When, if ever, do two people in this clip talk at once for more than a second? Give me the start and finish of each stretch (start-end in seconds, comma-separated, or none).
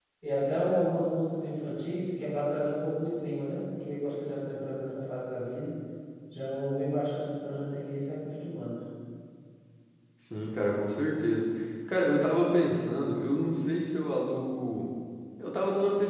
none